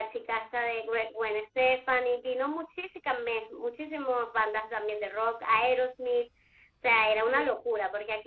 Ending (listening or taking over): listening